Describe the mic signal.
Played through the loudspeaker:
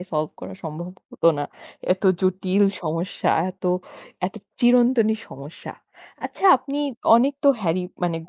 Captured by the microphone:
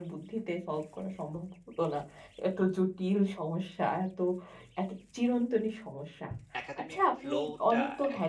both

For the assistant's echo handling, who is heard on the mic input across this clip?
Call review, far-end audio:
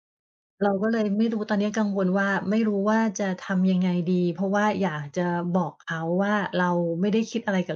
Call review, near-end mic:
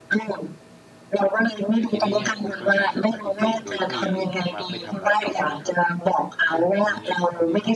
both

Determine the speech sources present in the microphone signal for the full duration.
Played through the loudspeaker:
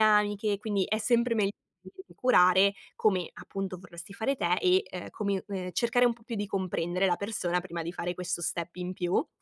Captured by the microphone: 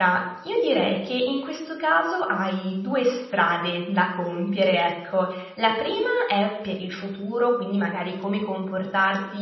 user only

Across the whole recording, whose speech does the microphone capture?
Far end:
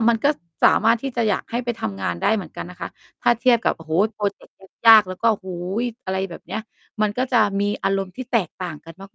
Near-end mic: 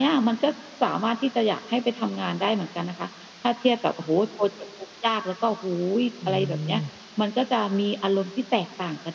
both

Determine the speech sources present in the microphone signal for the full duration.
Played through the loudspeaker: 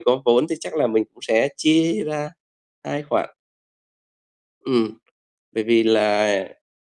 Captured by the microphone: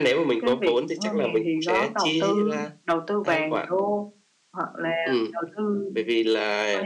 both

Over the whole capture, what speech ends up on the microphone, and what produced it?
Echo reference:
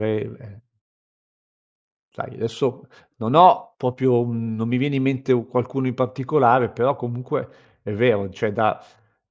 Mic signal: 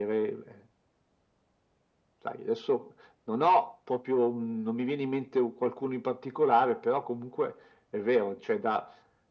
echo only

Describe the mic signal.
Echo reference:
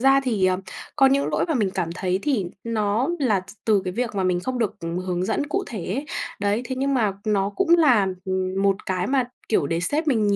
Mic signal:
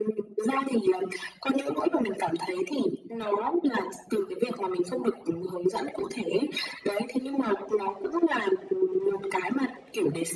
echo only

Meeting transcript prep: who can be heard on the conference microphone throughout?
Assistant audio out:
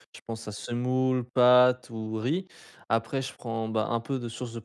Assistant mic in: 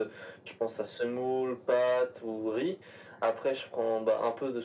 echo only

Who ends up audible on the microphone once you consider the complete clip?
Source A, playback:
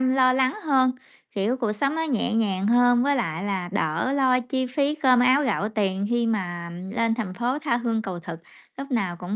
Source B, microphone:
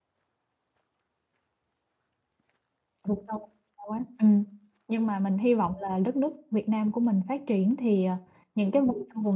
user only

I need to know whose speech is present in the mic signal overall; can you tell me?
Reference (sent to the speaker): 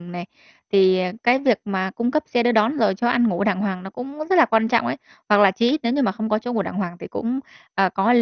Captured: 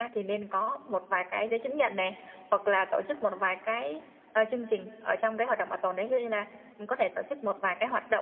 user only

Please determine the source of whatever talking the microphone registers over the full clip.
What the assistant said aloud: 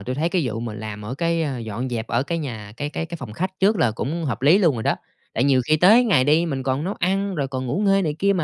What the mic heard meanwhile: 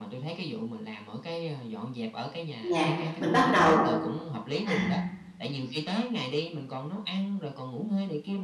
both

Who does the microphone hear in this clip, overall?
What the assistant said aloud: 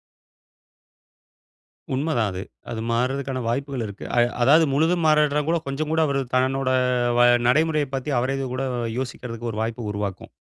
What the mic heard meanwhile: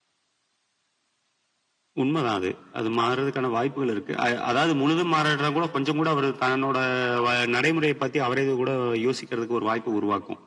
echo only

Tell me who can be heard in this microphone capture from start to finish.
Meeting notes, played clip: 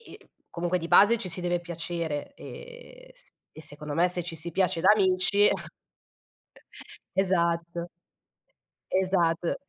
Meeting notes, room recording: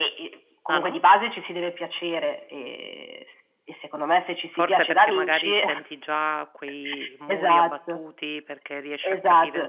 both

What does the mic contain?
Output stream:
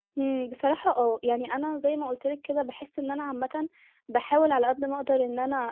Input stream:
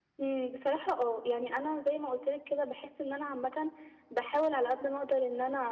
echo only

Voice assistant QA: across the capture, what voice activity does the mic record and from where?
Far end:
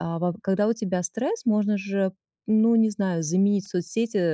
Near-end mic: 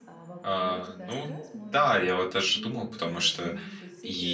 both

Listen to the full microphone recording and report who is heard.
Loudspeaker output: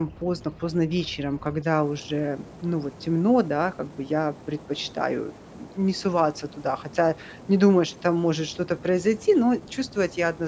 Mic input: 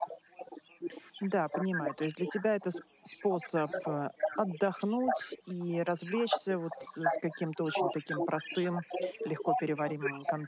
both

